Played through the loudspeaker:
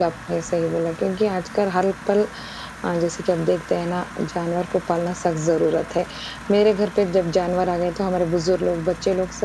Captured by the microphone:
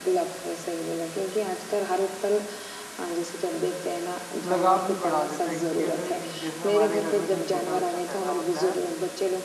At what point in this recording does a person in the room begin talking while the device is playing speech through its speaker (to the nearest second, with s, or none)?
4 s